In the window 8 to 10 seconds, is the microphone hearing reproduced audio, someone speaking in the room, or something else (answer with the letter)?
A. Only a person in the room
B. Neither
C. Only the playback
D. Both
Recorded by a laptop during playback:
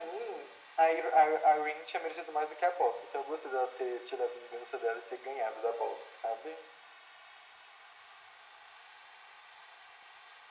B